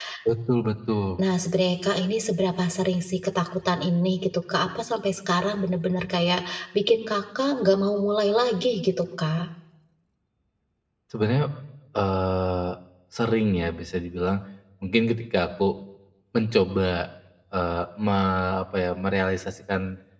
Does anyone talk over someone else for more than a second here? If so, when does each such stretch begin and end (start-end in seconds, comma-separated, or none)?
none